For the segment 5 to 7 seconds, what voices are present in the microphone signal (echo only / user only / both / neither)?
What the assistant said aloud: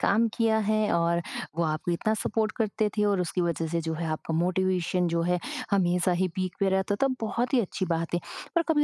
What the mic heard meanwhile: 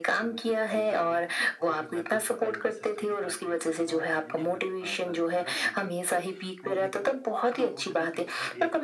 both